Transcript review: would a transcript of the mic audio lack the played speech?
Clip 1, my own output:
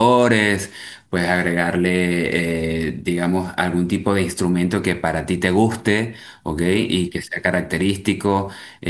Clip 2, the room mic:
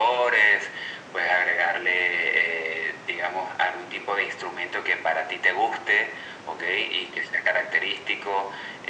No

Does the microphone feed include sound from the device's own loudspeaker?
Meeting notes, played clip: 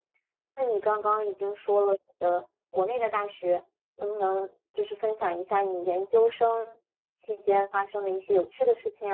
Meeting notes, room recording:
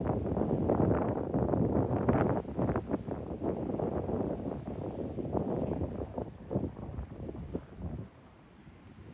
No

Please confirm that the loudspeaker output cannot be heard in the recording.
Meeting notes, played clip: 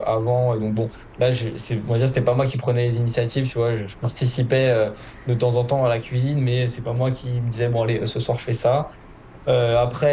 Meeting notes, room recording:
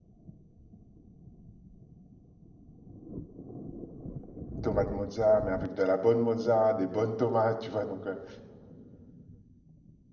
Yes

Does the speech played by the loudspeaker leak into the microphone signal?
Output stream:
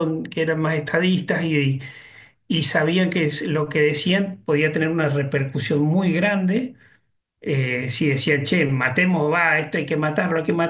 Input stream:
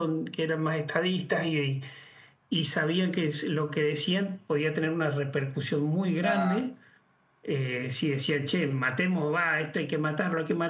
Yes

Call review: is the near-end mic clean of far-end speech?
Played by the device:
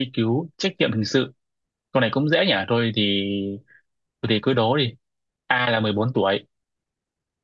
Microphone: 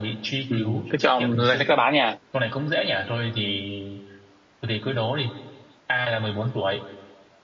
No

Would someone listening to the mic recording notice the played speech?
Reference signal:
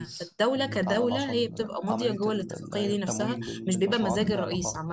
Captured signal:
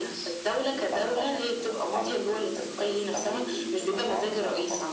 Yes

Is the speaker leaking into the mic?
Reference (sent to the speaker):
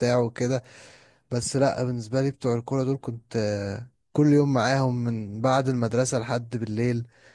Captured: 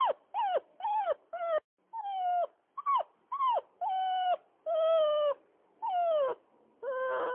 No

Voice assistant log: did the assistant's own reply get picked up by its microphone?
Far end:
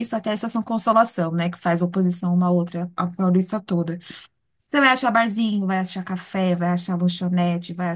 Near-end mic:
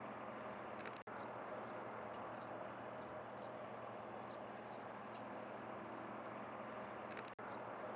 No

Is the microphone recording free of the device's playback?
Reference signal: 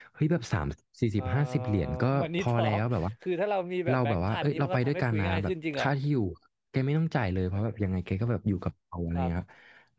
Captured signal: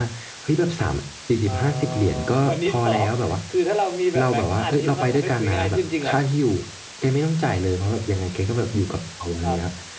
No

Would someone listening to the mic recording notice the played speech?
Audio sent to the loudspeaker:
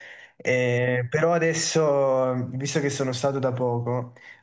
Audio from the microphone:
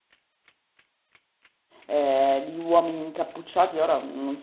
No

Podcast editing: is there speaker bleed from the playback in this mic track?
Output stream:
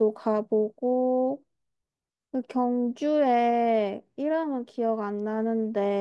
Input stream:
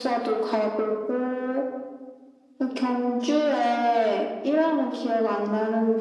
Yes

